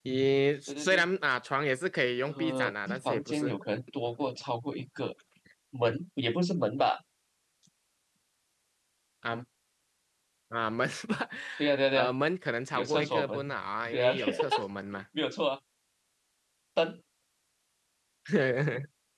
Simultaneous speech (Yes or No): Yes